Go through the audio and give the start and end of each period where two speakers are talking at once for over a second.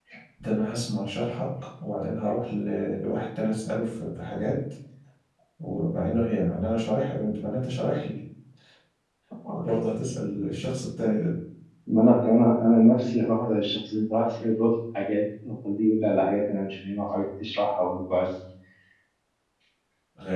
none

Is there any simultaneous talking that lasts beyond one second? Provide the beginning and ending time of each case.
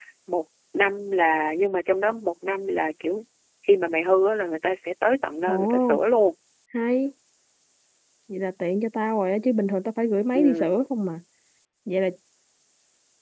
none

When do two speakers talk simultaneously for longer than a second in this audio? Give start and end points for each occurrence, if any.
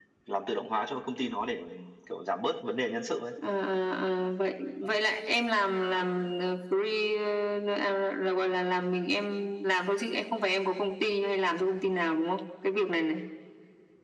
none

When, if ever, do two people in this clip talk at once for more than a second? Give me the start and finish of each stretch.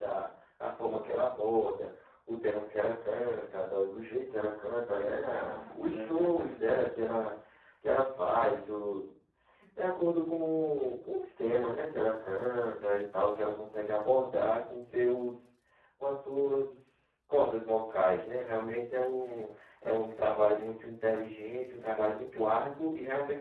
5.0-6.7

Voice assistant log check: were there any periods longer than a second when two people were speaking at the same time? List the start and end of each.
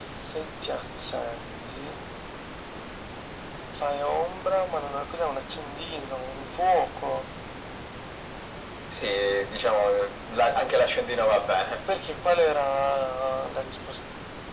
none

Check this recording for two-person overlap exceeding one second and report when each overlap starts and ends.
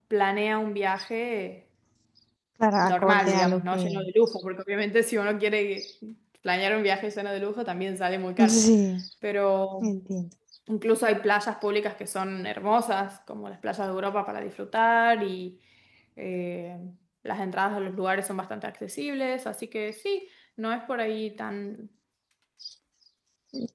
2.8-4.0

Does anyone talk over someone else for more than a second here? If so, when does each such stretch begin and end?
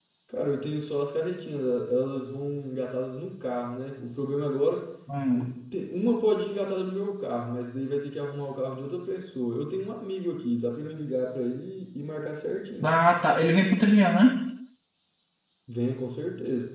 none

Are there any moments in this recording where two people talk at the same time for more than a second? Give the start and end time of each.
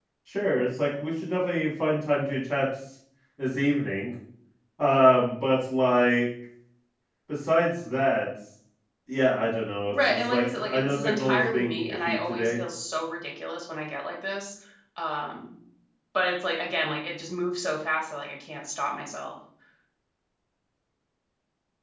9.9-12.6

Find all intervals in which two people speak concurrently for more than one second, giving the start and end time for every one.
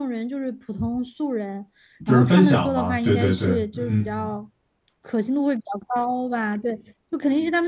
2.1-4.3

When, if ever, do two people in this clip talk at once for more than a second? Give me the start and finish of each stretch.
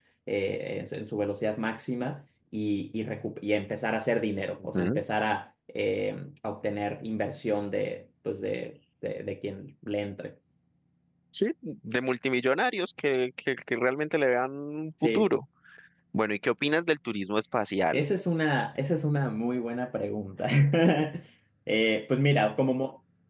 none

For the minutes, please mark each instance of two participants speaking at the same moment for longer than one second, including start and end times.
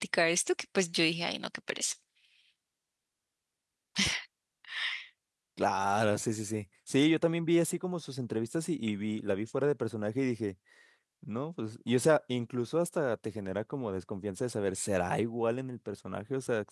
none

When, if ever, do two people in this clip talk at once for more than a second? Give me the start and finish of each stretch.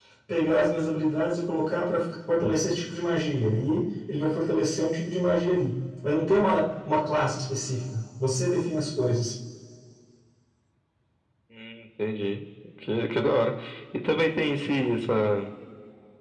none

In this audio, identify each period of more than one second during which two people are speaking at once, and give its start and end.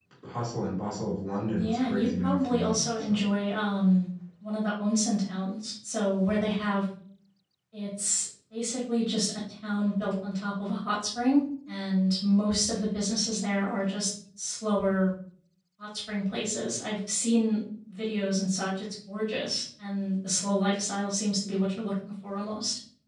1.5-3.2

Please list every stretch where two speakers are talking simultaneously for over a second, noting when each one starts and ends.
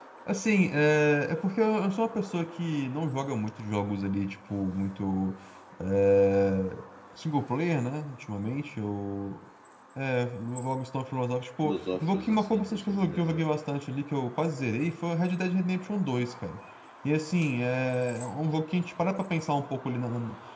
11.6-13.4

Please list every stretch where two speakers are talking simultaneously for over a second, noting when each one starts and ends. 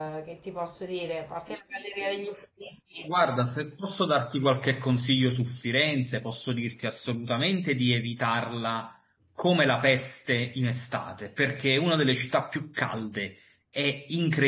none

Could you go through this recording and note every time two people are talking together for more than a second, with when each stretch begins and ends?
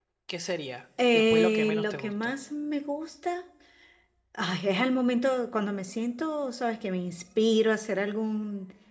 1.1-2.4

